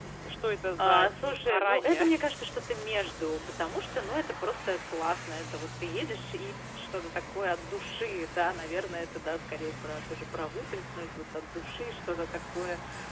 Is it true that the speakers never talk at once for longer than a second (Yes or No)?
No